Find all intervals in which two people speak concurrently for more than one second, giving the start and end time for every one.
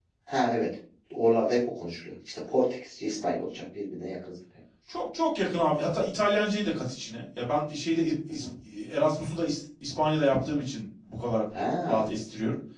none

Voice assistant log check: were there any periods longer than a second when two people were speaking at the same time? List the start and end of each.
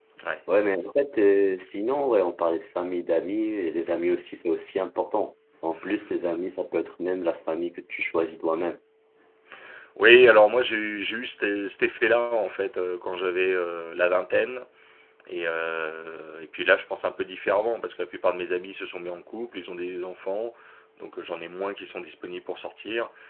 none

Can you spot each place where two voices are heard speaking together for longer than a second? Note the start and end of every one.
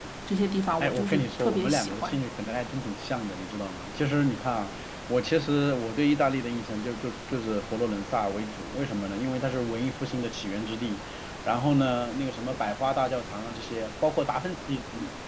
0.8-2.2

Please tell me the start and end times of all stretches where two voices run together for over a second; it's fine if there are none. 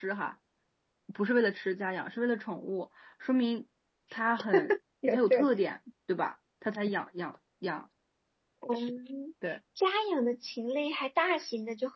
none

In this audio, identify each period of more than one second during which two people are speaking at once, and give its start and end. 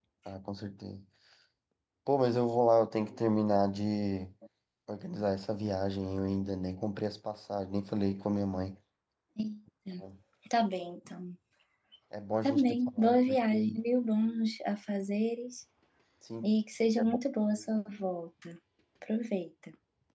12.4-13.8

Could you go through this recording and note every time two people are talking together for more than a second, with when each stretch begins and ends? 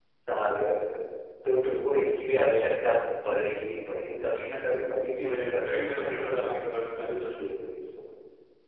5.2-6.5

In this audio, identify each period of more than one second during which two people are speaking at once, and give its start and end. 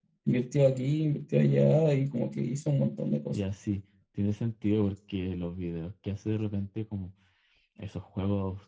none

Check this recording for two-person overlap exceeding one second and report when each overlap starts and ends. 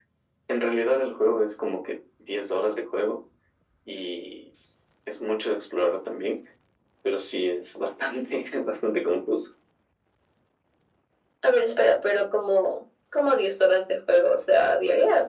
none

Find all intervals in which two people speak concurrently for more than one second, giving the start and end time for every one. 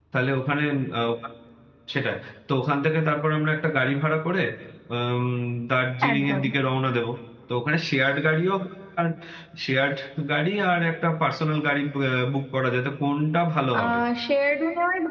none

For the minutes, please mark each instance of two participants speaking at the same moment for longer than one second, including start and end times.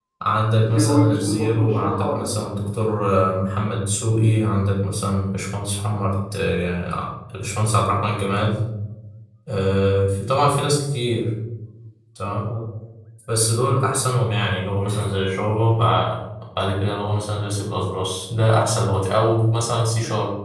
0.6-2.4

